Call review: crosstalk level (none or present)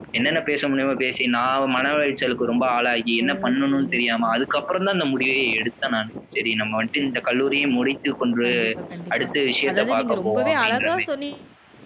present